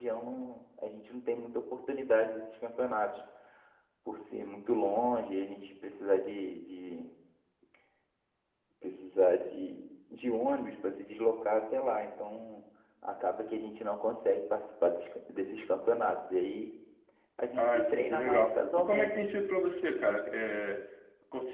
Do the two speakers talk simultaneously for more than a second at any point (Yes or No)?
Yes